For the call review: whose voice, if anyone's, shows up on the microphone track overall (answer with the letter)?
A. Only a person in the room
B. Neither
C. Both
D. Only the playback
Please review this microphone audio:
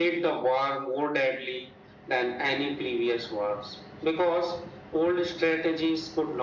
D